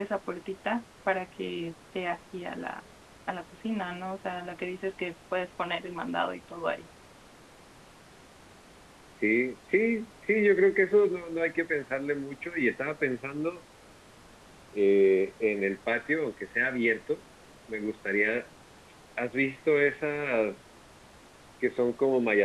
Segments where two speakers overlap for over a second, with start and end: none

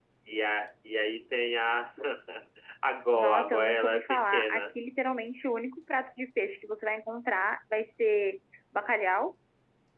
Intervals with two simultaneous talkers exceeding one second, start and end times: 3.2-4.6

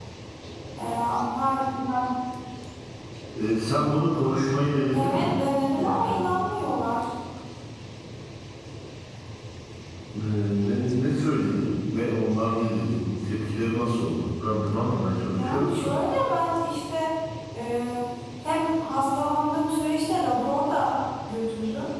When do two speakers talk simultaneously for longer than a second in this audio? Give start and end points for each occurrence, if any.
none

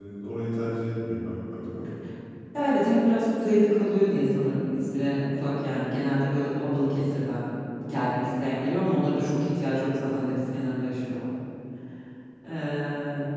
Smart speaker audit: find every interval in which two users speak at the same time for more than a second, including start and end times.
none

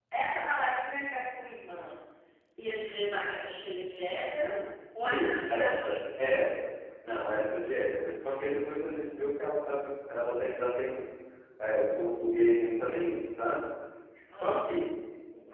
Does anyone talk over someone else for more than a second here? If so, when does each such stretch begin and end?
5.0-6.4

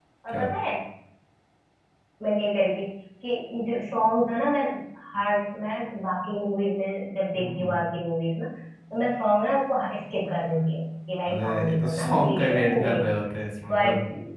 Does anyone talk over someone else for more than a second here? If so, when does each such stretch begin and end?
11.3-13.1

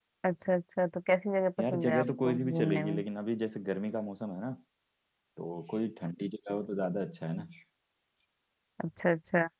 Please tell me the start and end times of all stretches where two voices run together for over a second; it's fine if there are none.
1.6-3.0

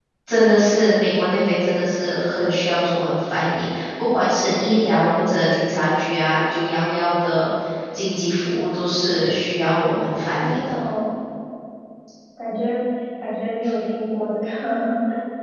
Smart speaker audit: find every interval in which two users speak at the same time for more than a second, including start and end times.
none

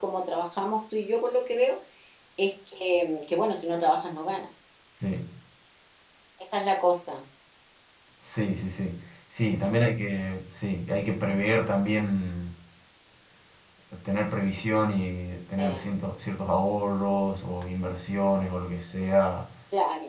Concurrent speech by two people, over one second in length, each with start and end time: none

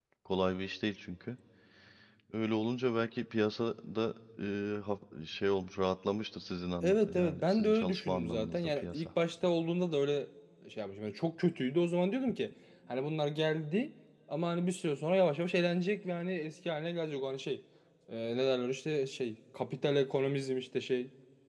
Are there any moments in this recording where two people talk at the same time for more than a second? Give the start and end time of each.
6.8-9.1

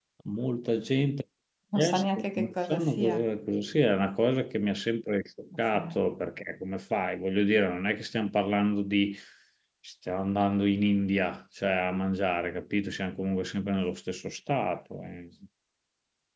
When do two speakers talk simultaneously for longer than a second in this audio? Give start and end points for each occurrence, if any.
1.8-3.2

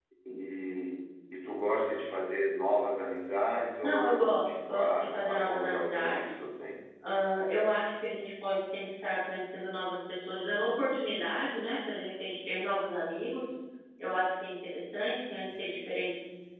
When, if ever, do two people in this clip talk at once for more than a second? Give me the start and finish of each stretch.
3.8-6.2

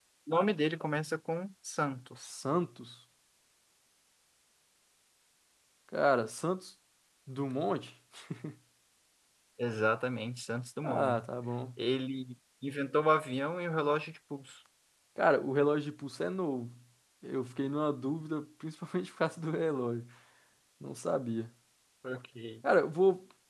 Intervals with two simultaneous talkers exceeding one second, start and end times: none

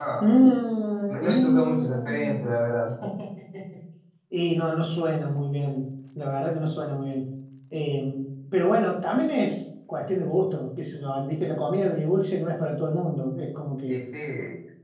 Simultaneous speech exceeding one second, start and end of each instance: 1.1-2.4

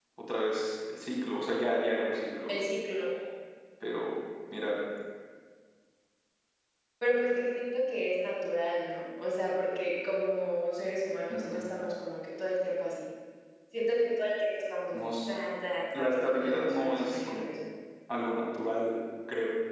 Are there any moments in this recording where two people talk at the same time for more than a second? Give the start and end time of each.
15.9-17.5

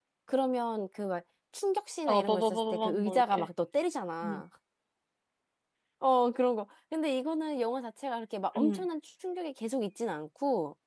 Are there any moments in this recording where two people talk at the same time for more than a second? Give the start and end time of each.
2.1-3.5

